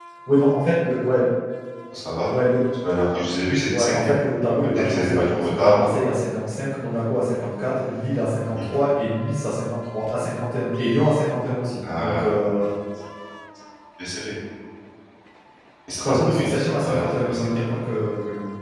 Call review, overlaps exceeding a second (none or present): present